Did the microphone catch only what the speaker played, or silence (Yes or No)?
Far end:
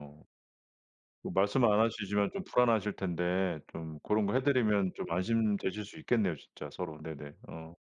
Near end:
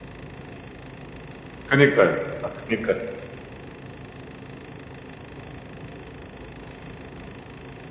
No